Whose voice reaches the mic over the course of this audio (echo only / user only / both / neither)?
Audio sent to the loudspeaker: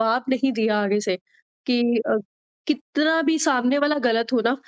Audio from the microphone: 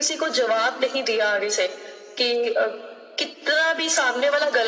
echo only